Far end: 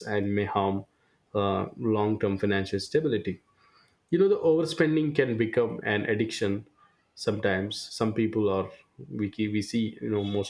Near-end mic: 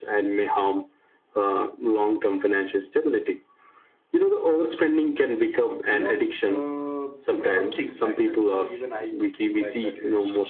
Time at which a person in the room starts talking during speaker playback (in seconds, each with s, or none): 5.9 s